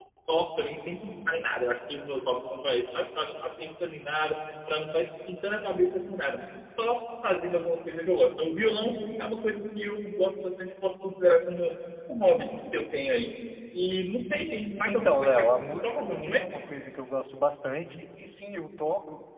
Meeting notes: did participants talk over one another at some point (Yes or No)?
Yes